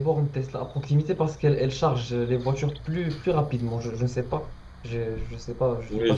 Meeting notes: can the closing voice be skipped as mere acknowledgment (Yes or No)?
No